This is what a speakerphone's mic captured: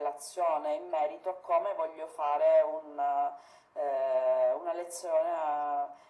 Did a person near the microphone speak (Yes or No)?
No